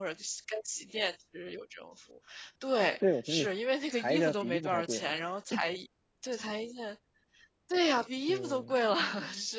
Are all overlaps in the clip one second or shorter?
No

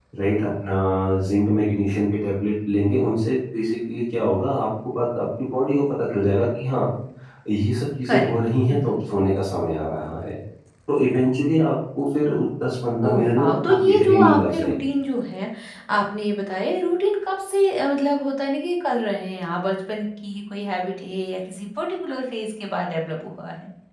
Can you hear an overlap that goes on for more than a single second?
Yes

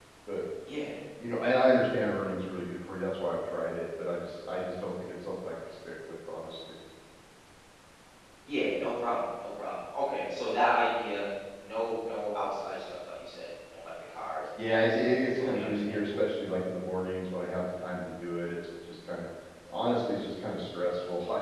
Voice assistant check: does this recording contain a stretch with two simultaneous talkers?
Yes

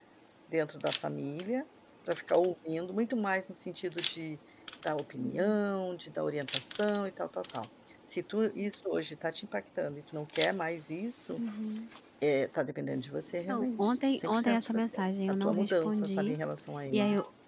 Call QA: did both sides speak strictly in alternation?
No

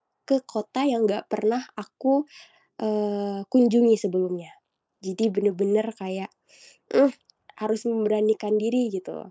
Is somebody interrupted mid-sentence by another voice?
No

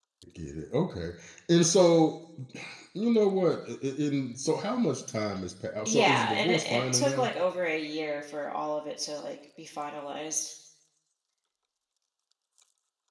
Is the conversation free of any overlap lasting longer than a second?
No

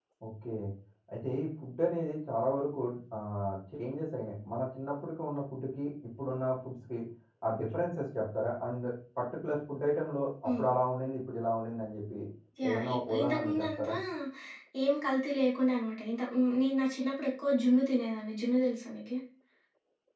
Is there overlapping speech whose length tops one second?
Yes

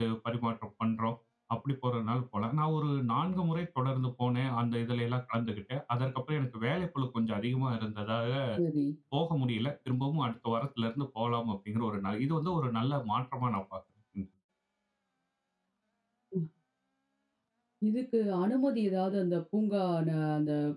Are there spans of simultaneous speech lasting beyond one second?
No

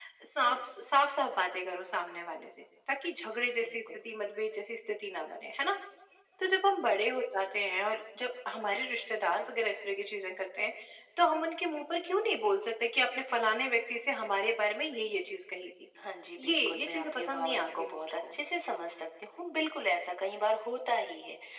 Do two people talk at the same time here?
Yes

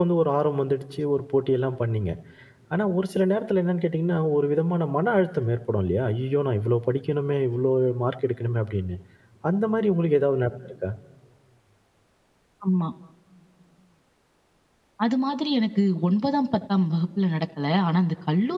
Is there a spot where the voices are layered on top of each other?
No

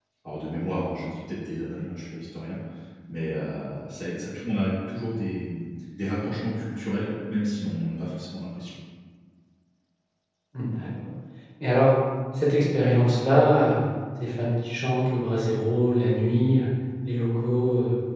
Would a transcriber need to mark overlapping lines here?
No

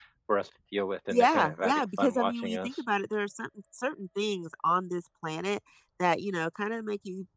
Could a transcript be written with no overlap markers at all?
No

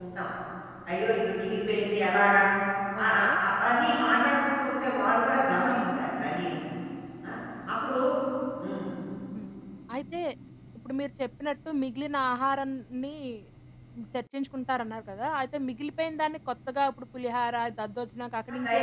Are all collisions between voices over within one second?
Yes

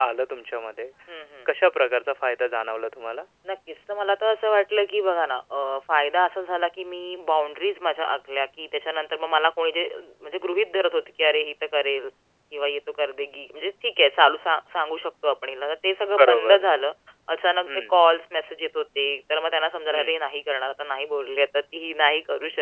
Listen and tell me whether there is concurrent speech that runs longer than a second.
No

